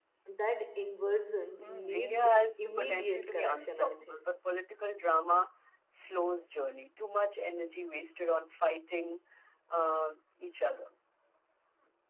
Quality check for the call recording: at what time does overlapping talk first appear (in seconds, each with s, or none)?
1.6 s